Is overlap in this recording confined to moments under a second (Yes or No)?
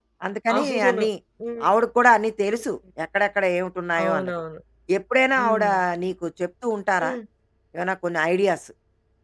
Yes